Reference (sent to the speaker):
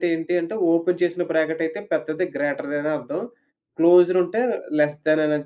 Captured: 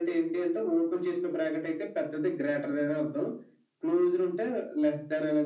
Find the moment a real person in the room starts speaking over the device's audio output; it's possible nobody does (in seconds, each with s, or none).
none